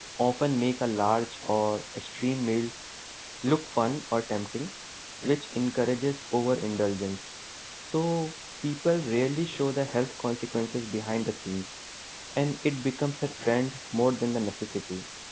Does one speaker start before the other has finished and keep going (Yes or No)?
No